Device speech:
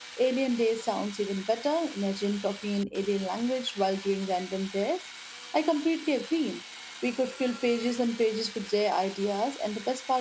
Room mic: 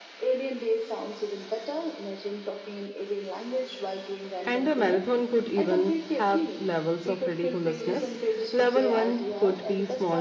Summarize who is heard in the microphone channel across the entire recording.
both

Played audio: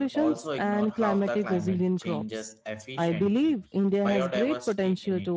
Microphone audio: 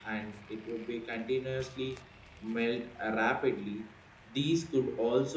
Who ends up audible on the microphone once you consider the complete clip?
user only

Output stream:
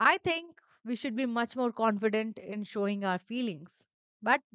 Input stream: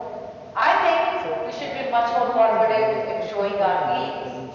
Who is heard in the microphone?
both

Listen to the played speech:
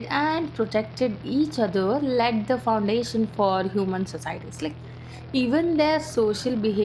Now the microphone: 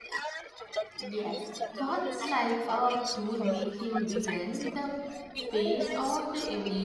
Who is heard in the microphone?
both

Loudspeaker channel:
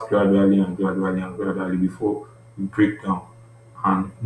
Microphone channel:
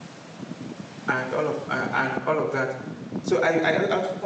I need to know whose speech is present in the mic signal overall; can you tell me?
user only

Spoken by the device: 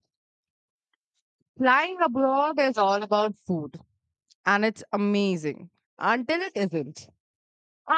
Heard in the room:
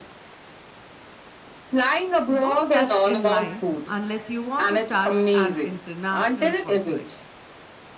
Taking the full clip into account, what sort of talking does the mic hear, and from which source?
both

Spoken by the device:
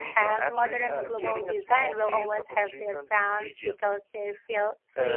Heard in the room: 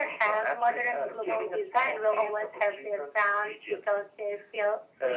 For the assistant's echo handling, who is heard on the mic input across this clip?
echo only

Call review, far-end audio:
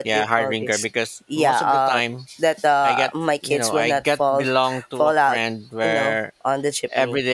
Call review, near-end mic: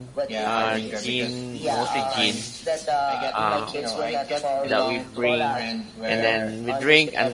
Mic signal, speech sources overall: both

